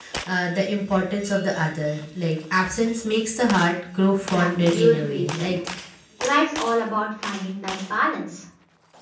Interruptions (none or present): present